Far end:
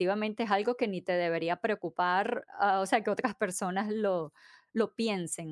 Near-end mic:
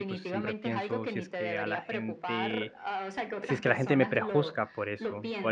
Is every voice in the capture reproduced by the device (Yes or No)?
No